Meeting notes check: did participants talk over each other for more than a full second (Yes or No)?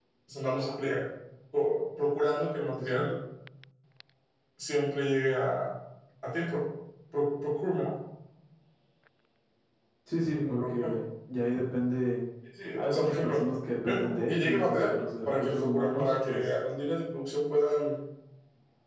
Yes